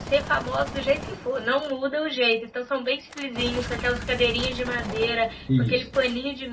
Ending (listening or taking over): listening